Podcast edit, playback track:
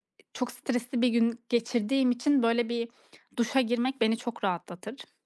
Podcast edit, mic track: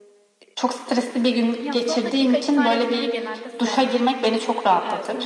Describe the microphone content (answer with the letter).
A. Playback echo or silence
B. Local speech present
B